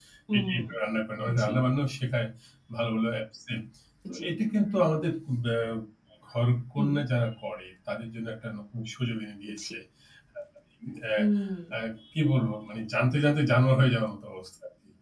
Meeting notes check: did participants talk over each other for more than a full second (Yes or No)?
No